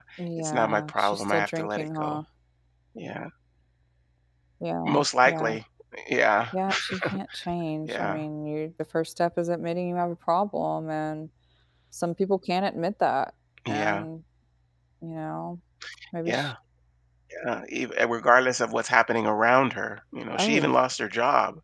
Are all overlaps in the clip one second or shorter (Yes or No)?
No